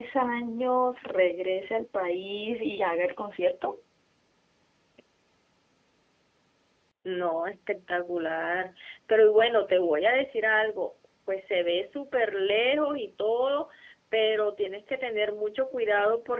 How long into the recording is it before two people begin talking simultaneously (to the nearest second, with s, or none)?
none